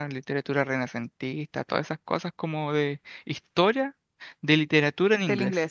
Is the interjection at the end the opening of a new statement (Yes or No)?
Yes